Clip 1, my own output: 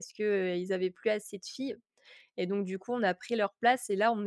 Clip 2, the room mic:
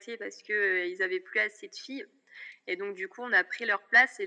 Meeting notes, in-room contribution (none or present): none